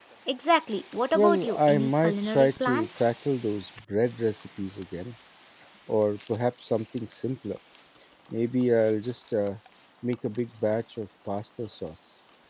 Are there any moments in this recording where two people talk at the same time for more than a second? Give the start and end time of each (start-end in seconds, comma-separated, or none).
1.1-3.0